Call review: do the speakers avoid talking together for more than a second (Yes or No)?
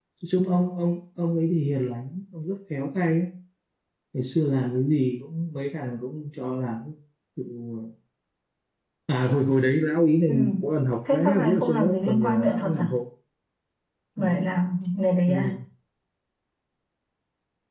No